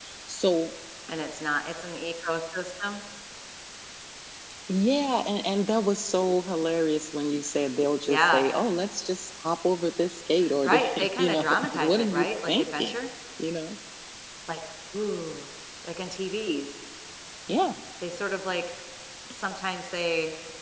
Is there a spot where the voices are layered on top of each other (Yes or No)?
Yes